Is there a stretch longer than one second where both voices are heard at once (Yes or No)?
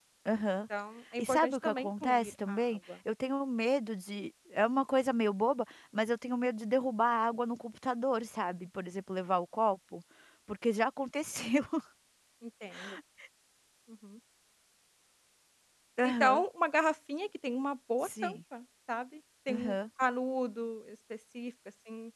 Yes